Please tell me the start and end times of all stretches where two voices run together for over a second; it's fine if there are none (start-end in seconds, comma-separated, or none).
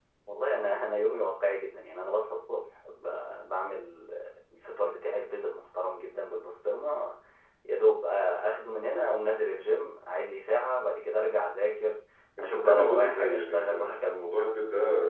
12.4-14.1